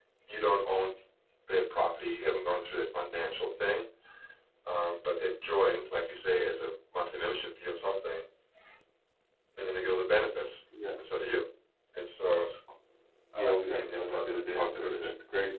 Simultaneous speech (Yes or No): Yes